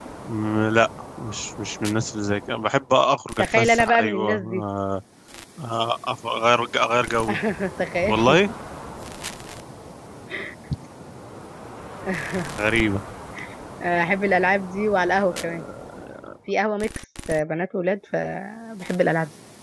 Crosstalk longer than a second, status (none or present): present